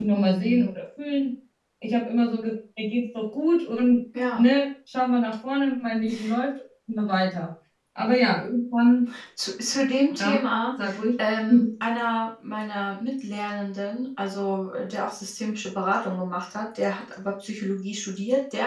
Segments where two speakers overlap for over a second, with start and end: none

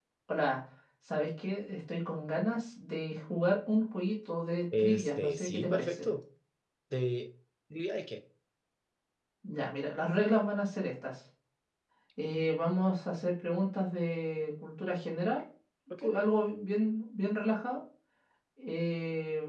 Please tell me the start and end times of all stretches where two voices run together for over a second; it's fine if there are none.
4.8-6.1

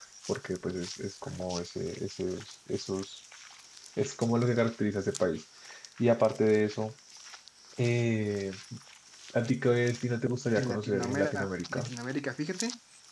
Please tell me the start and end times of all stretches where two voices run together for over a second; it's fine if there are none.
10.6-11.9

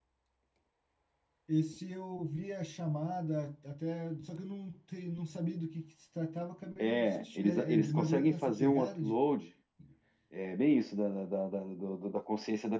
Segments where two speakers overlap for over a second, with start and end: 6.8-9.2

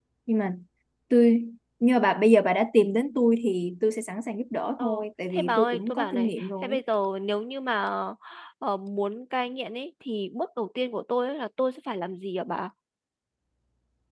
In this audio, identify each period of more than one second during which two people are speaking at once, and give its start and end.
5.3-6.8

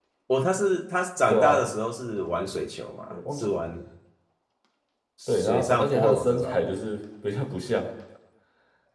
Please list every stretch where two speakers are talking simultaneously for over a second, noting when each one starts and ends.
5.3-6.7

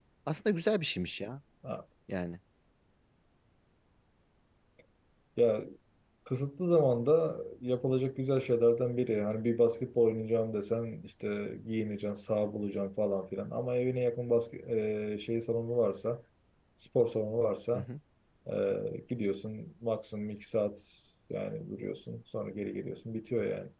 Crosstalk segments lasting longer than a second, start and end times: none

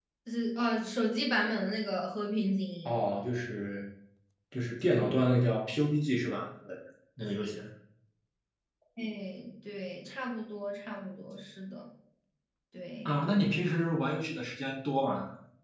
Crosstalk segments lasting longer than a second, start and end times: none

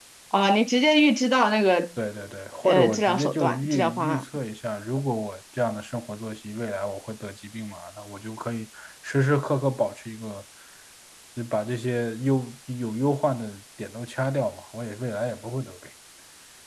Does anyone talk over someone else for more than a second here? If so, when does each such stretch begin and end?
2.6-4.2

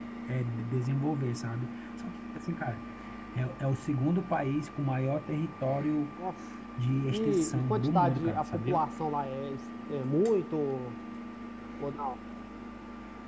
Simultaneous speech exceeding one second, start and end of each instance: 7.1-8.8

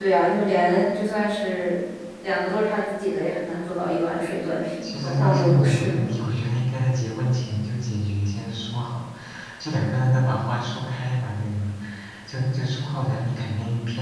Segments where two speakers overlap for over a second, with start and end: 4.8-6.2

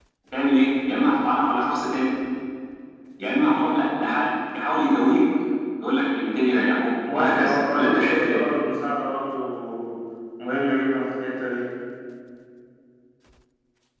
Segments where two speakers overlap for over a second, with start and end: 7.1-8.4

